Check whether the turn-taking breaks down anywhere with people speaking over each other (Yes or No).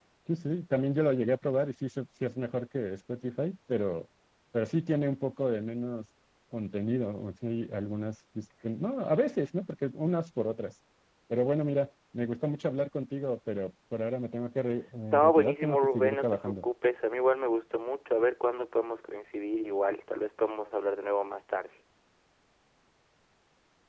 Yes